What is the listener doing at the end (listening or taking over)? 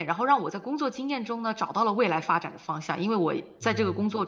listening